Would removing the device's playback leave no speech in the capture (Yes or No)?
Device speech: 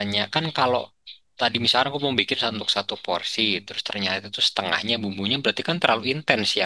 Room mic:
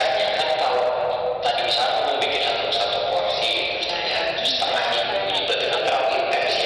No